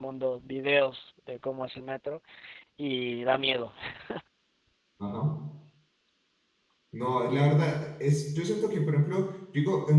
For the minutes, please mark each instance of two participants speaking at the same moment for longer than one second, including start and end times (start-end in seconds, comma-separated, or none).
none